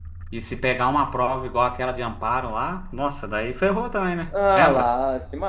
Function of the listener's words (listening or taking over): taking over